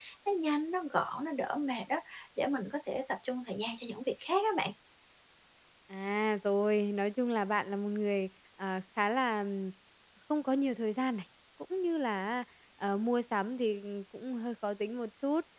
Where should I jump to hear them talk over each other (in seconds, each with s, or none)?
none